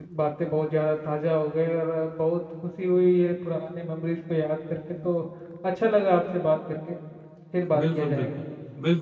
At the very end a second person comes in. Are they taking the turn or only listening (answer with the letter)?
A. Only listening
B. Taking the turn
B